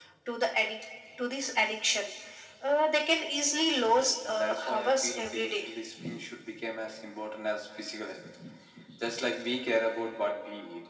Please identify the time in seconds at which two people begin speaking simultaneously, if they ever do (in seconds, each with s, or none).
3.8 s